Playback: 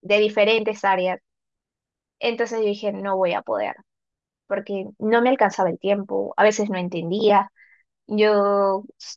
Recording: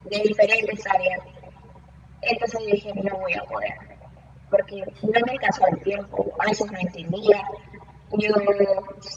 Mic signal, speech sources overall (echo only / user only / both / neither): echo only